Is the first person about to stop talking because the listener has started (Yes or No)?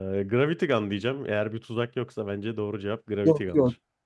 Yes